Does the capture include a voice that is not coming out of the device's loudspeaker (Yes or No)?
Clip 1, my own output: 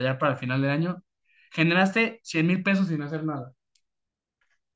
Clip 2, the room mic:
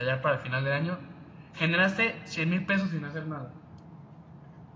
No